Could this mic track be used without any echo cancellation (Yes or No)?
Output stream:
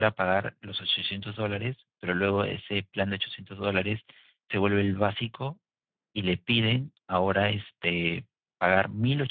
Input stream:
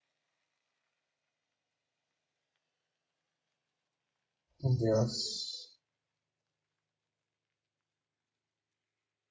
Yes